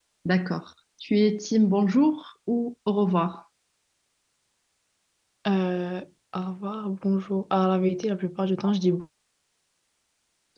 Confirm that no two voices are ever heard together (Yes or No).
Yes